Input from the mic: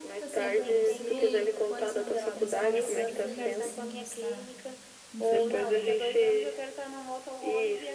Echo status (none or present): present